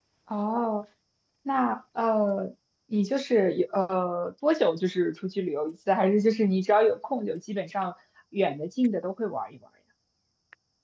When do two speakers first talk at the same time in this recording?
none

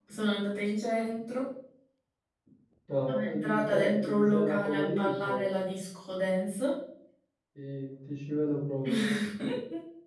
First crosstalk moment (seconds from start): 3.1 s

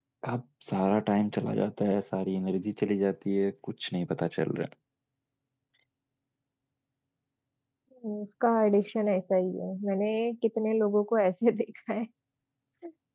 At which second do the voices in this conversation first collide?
none

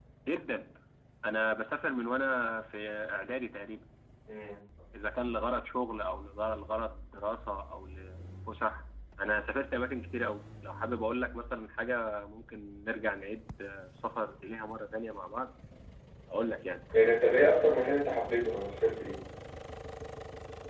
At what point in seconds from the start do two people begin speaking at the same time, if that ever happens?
none

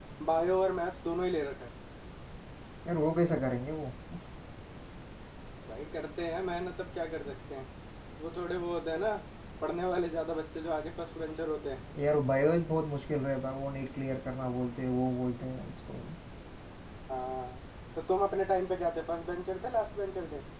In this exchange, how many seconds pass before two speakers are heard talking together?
none

